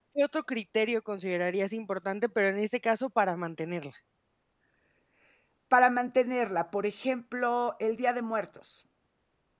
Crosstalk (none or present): none